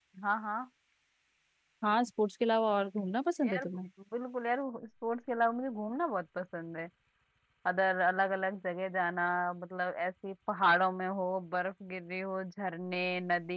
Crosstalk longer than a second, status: none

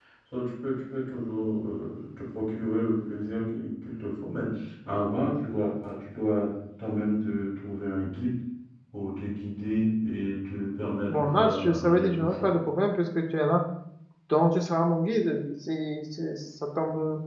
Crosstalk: present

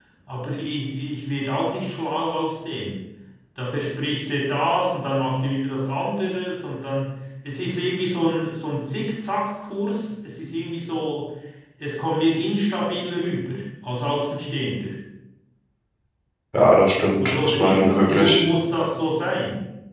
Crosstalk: present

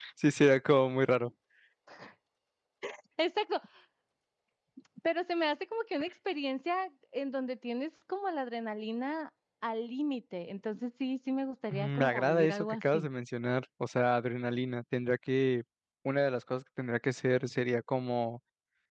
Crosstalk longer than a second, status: present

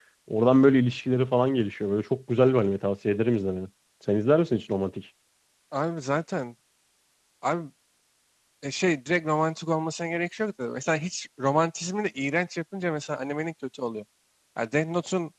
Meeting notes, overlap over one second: none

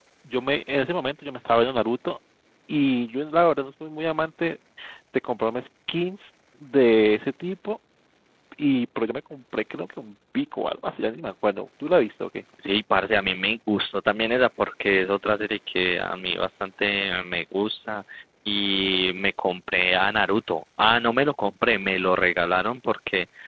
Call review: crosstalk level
none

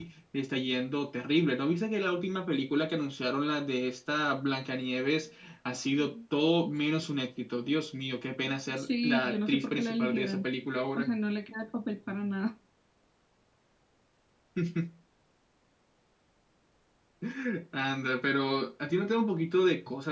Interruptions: present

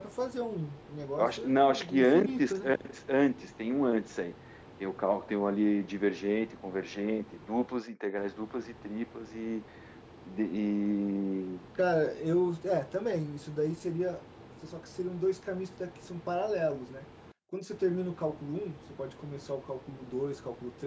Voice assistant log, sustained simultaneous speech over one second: present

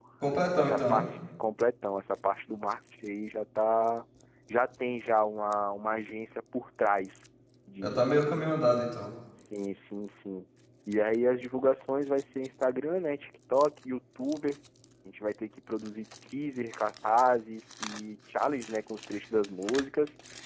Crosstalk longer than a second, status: none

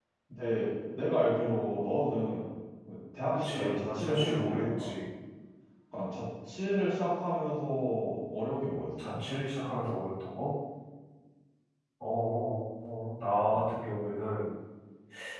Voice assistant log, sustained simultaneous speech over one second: present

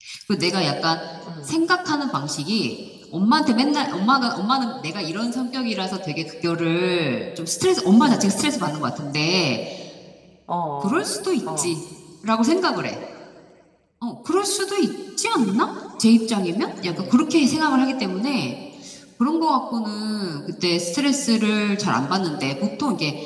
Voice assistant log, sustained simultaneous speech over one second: none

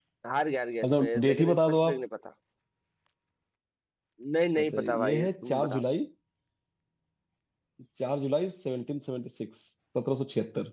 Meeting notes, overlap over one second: present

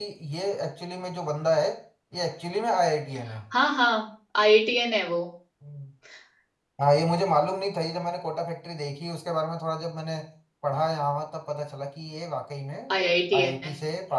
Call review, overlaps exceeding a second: none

